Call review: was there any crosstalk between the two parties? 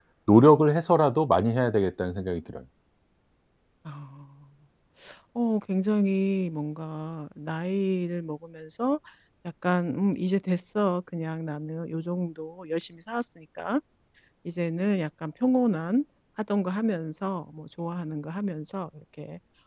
No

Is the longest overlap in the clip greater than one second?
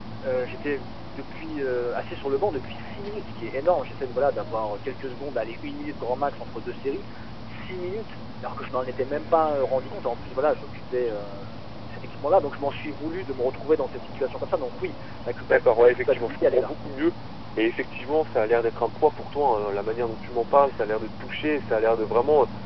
Yes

